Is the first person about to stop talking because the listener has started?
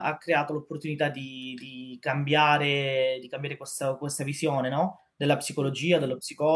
No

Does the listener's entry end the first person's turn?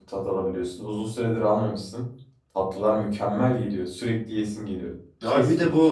Yes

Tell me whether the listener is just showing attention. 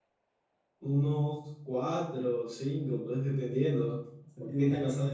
Yes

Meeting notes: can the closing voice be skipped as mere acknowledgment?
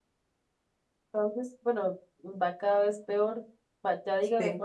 Yes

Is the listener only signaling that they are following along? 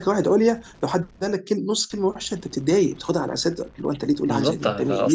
No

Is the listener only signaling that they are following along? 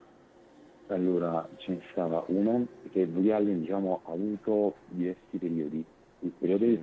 Yes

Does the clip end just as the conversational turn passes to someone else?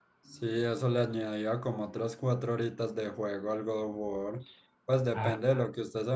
No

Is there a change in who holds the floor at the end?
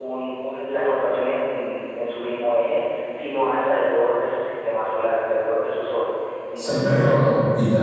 Yes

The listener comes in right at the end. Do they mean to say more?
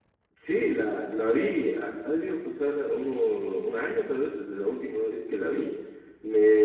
No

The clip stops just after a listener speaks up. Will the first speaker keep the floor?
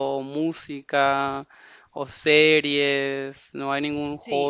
No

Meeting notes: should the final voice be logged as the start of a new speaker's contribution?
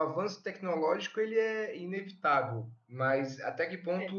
No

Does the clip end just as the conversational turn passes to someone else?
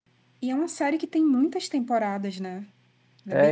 Yes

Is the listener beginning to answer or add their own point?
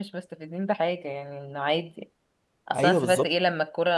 No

